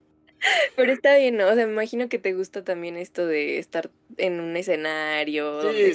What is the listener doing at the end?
taking over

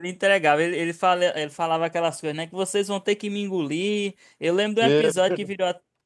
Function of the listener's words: listening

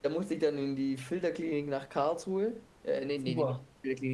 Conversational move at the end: listening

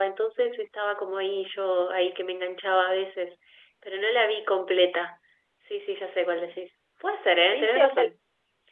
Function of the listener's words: taking over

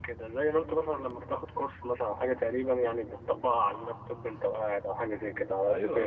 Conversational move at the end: taking over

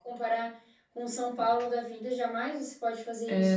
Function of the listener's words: taking over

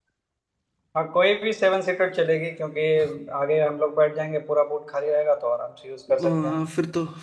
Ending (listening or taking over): taking over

